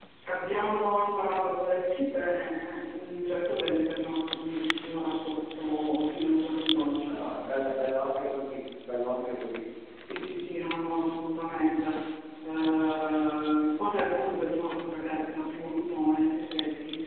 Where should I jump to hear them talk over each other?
none

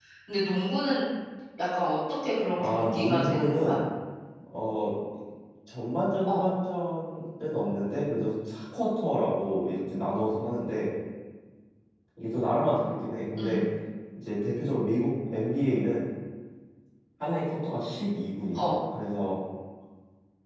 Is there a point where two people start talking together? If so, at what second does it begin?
3 s

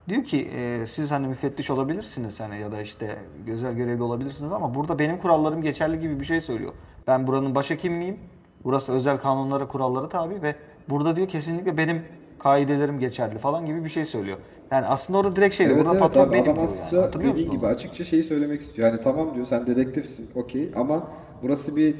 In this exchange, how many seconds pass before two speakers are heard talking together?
16 s

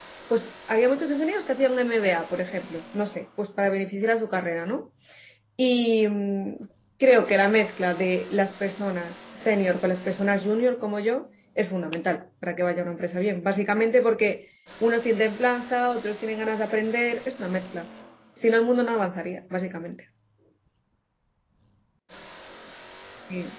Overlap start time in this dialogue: none

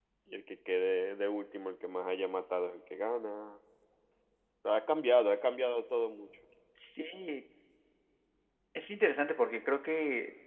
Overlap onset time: none

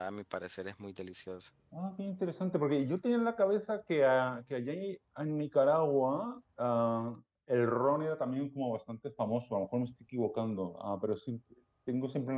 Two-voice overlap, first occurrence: none

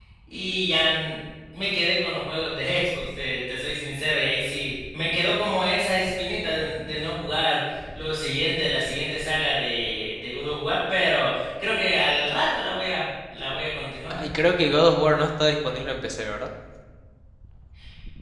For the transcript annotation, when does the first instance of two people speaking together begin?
none

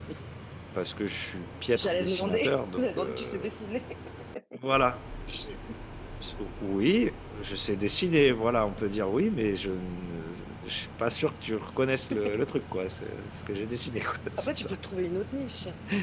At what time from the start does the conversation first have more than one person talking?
2 s

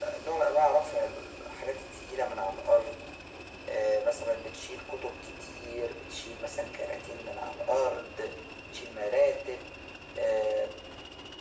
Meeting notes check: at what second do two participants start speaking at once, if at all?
none

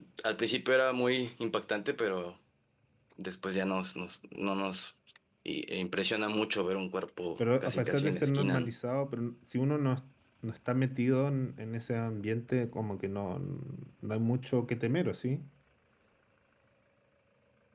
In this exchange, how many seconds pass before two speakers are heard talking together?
7 s

